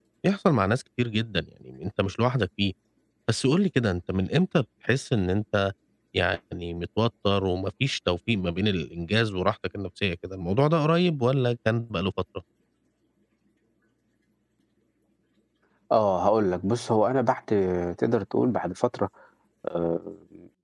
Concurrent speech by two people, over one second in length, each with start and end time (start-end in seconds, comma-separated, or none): none